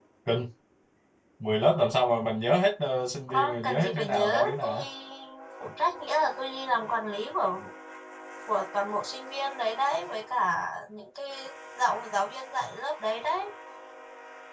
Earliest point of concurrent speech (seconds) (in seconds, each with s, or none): 3.3 s